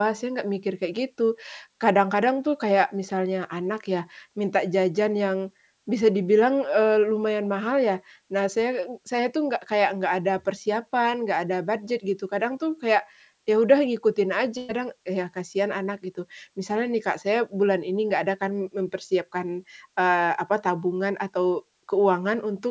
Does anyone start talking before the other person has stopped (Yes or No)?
No